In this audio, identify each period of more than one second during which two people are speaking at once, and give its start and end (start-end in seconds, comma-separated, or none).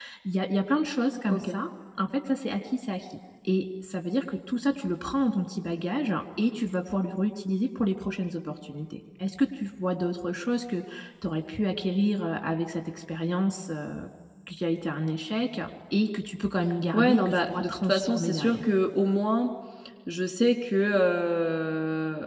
16.9-18.6